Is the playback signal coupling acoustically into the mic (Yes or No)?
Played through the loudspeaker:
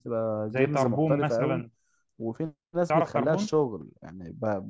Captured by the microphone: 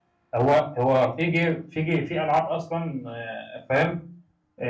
No